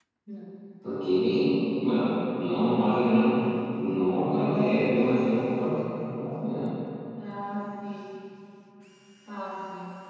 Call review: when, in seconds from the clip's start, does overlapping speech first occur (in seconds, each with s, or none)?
4.0 s